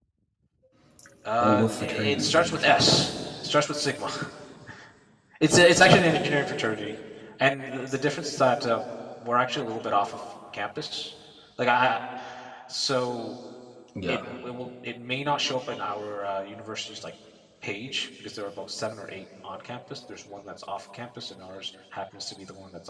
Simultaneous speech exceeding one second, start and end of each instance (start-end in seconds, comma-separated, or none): 1.4-2.9